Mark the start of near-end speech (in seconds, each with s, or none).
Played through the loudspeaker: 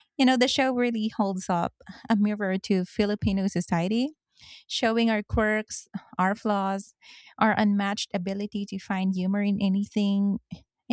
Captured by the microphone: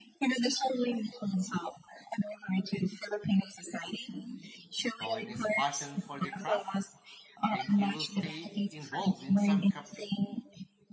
4.8 s